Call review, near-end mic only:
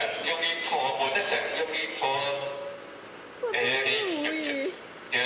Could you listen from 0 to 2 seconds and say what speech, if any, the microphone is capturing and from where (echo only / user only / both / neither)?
echo only